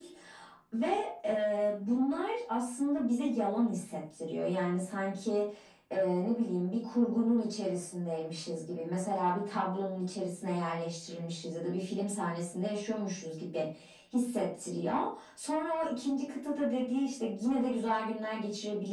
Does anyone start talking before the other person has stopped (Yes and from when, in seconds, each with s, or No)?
No